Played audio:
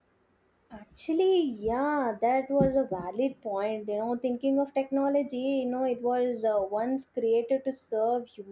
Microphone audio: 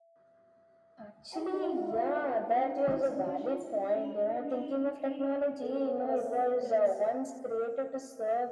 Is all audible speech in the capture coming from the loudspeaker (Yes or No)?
No